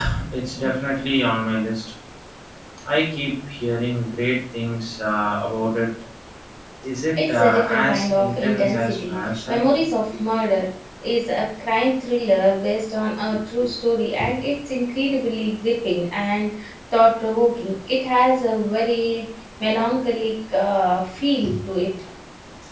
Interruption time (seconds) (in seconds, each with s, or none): 7.1 s